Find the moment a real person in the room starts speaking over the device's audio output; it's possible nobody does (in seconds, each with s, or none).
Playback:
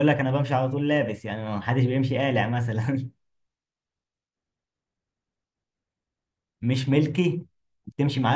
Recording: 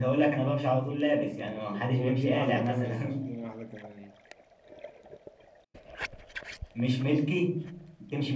2.0 s